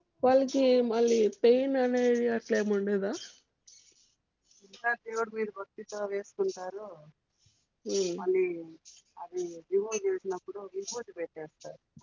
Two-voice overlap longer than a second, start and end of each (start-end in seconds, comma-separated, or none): none